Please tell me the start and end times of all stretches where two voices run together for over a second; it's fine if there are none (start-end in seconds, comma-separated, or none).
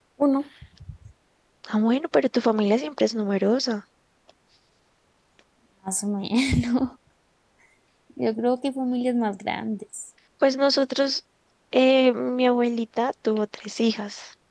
none